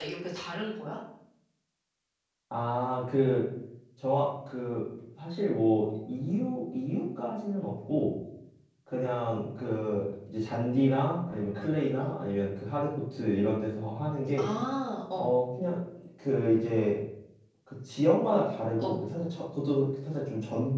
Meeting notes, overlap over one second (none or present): none